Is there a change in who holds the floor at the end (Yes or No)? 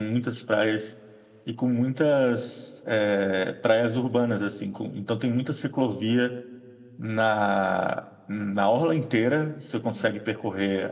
No